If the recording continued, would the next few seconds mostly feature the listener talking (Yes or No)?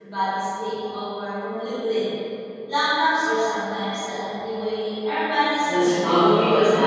Yes